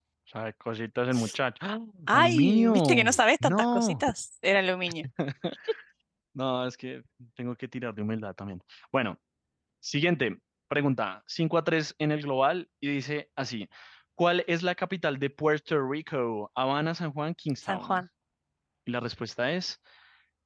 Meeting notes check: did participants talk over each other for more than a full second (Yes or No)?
Yes